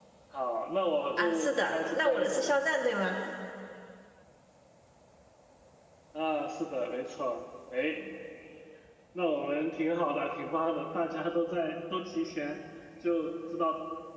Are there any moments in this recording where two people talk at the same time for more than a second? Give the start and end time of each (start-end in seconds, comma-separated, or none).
1.2-2.5